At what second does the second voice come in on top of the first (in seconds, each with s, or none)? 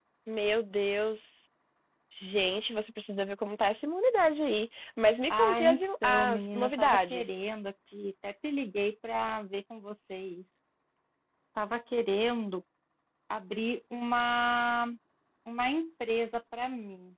5.3 s